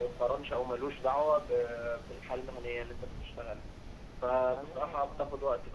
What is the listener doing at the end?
listening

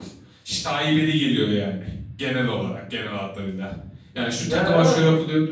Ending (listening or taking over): listening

